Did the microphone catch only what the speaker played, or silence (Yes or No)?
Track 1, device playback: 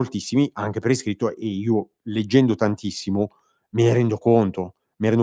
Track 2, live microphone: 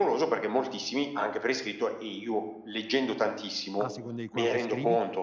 No